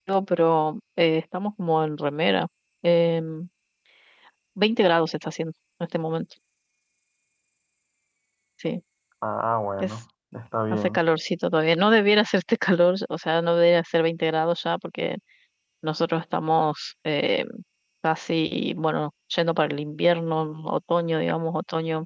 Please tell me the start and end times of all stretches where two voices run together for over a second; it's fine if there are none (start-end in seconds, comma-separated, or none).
none